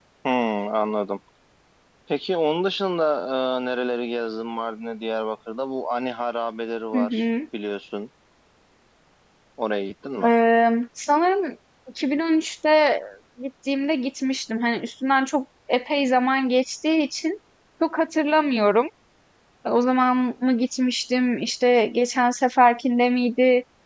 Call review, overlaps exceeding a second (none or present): none